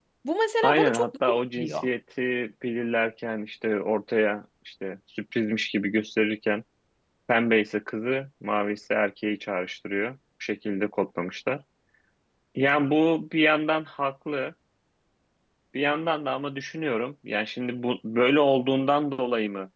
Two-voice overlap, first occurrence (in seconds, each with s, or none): 0.6 s